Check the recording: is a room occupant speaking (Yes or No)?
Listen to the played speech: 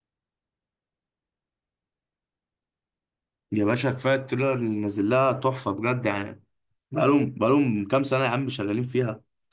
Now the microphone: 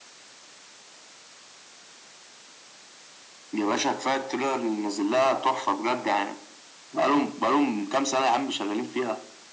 No